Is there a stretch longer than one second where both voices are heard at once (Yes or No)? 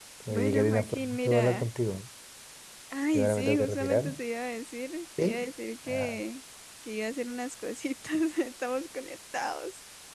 Yes